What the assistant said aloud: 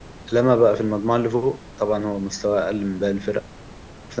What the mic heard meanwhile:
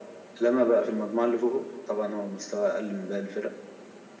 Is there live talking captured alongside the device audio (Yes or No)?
No